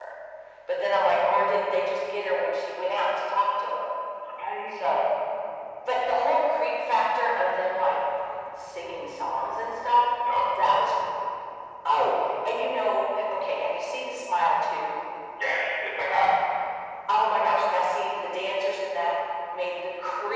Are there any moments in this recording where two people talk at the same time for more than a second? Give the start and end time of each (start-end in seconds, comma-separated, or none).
none